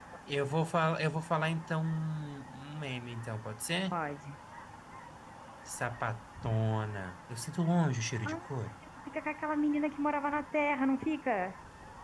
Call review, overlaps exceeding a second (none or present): none